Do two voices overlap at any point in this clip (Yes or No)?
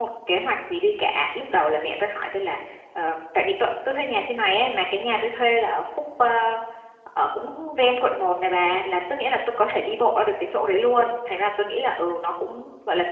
No